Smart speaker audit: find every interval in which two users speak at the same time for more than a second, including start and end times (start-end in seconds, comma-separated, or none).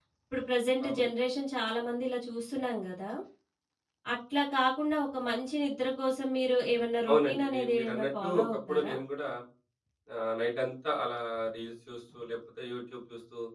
7.1-8.9